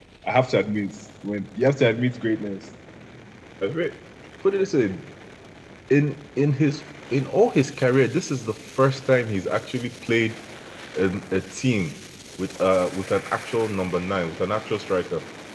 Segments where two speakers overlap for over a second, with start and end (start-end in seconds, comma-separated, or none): none